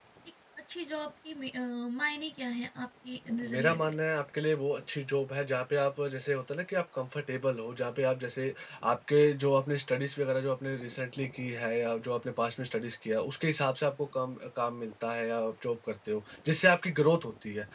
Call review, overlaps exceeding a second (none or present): none